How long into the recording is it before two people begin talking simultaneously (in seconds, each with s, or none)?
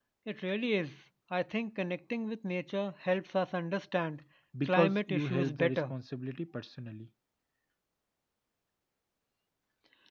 4.6 s